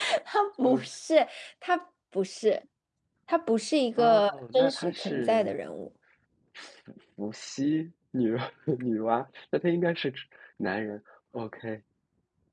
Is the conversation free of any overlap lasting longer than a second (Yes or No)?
No